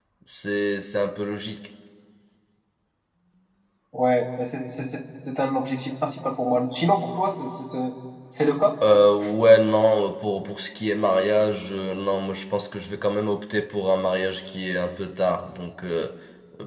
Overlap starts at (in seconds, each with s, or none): none